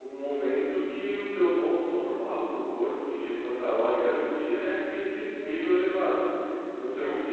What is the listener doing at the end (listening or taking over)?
listening